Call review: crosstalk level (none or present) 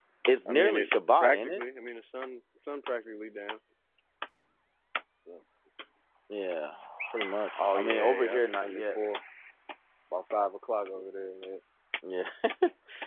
present